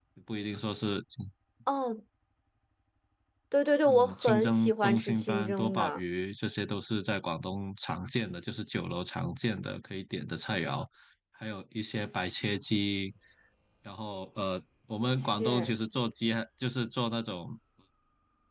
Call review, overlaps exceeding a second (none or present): present